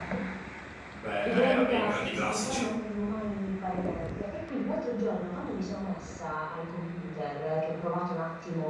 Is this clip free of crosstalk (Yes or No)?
No